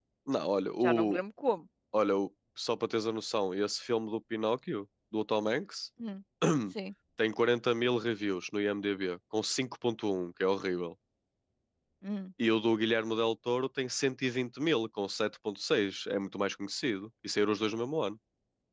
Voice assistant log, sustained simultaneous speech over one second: none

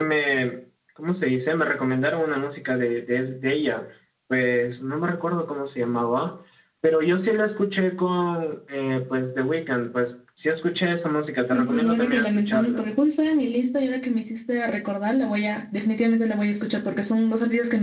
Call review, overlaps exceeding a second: present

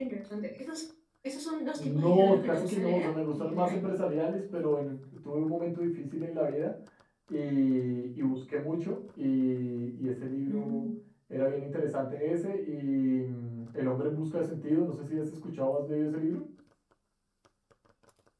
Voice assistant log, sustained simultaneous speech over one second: present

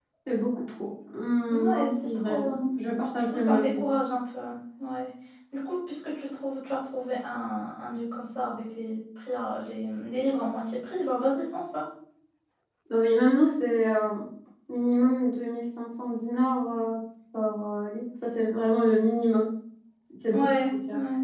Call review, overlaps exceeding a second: present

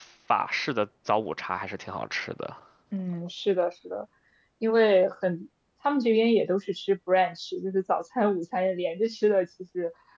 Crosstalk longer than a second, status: none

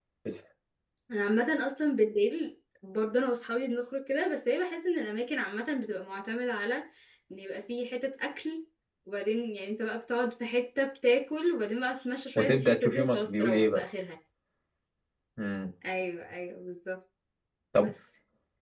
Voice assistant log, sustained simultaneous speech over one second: present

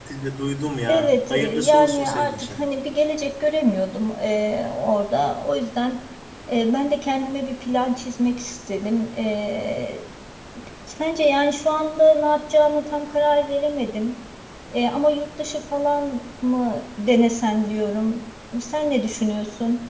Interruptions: present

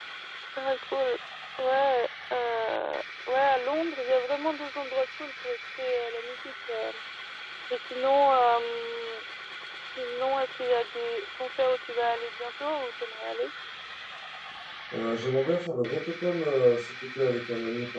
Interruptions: none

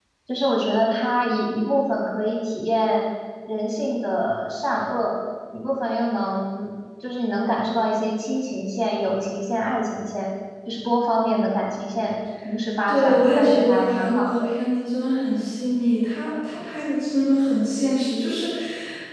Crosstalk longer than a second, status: present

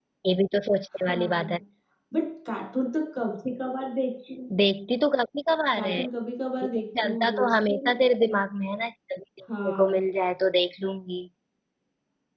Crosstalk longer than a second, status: present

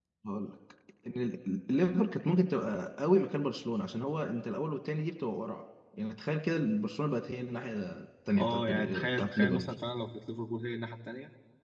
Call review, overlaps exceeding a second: present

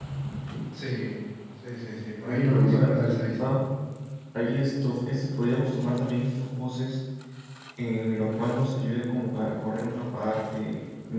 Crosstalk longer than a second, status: present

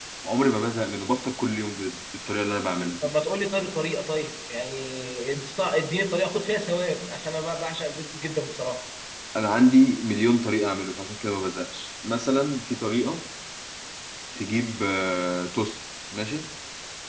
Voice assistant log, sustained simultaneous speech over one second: none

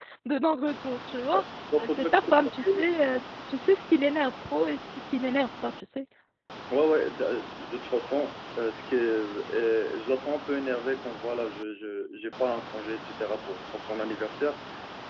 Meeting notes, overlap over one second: present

